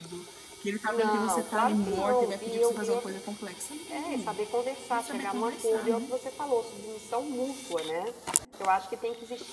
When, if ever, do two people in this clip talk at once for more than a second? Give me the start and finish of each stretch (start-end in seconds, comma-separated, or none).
0.9-3.2, 4.9-6.1